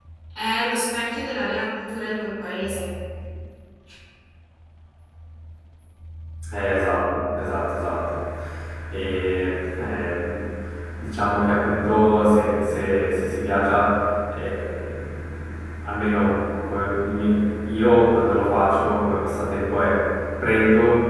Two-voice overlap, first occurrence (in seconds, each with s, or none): none